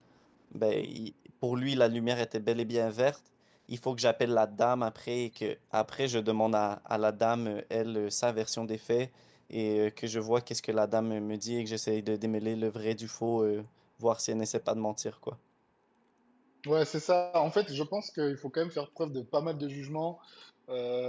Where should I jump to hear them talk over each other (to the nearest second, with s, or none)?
none